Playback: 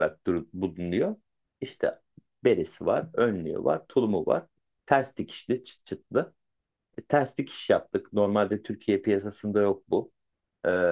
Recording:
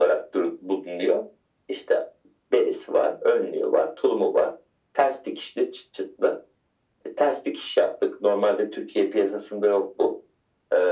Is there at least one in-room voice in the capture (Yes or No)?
No